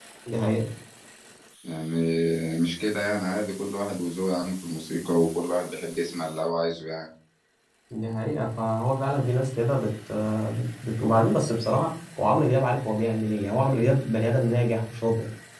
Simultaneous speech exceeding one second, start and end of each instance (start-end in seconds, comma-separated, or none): none